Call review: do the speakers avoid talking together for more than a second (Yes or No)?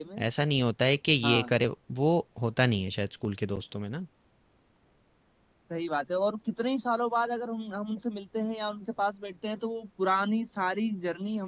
Yes